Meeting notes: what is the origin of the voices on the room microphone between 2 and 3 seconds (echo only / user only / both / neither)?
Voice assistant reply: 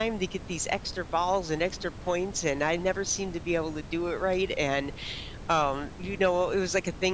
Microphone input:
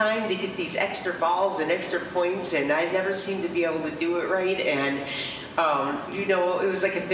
echo only